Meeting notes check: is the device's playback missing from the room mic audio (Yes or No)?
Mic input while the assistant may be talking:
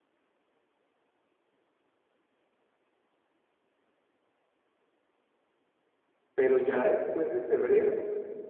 Yes